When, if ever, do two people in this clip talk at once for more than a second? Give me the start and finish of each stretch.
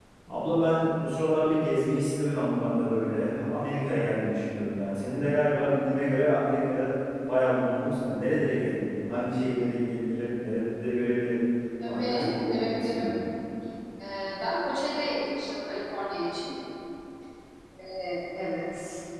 11.8-13.1

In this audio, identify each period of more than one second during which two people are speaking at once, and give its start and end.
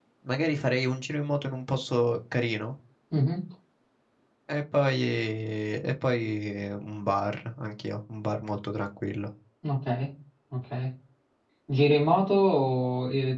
none

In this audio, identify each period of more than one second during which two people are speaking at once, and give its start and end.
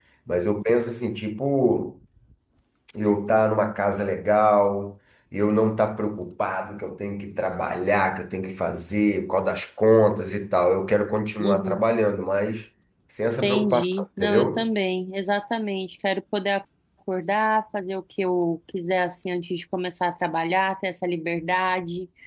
13.4-14.7

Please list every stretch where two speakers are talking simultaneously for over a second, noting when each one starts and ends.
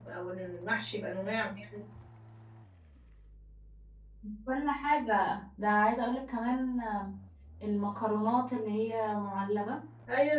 none

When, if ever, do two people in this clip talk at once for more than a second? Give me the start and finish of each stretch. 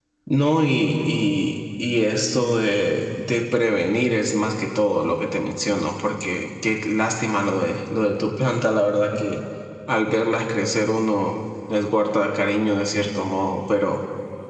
none

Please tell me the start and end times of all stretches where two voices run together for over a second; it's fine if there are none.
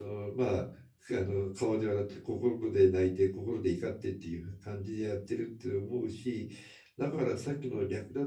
none

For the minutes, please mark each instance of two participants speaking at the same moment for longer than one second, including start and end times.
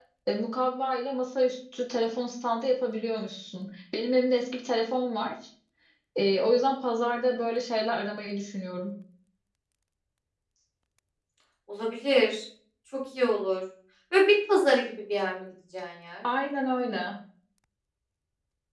none

